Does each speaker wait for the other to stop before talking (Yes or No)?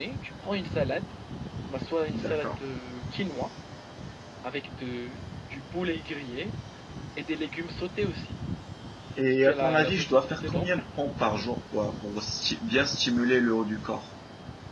No